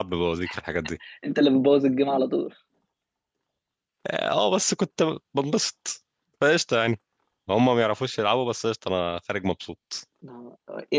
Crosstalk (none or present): none